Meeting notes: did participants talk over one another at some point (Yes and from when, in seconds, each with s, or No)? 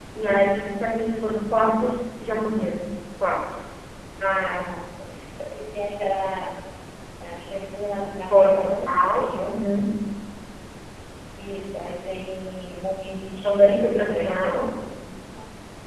Yes, from 8.3 s